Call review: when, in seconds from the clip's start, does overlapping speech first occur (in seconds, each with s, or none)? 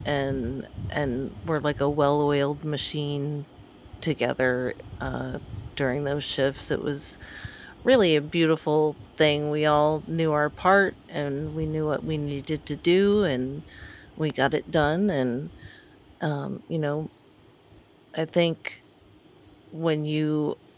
none